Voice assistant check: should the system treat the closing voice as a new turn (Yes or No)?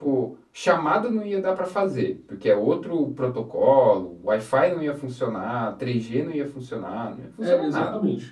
Yes